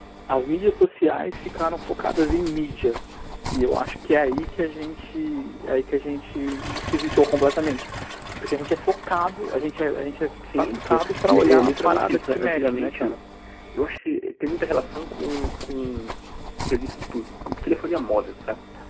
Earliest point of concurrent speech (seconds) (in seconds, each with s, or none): 10.4 s